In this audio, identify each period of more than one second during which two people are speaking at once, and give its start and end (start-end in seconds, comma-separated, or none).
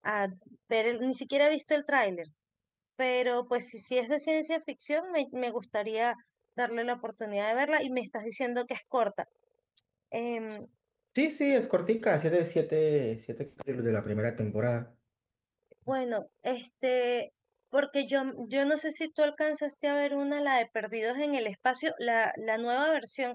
none